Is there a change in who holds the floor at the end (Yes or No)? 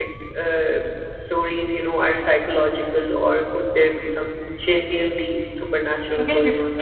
Yes